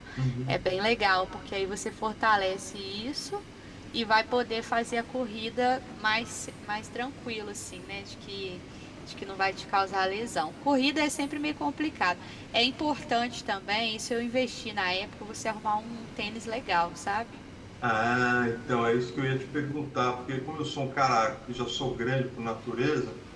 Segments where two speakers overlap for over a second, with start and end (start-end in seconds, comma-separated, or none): none